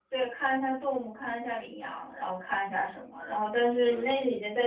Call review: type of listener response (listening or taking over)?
listening